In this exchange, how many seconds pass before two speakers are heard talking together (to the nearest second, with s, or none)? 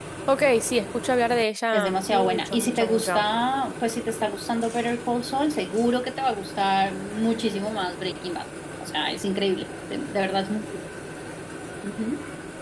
2 s